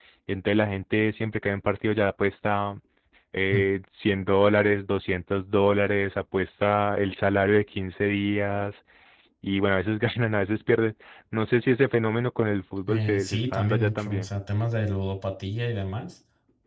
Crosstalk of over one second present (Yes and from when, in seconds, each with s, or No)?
Yes, from 12.9 s